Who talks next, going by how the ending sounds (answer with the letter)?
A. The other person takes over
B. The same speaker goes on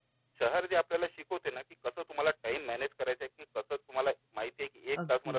B